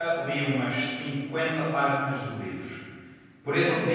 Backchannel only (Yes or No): Yes